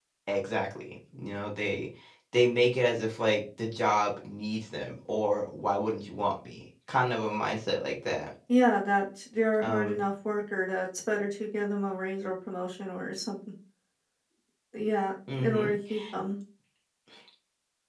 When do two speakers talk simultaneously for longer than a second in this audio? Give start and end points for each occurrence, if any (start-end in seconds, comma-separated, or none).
none